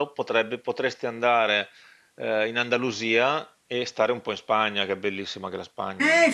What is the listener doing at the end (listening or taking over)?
taking over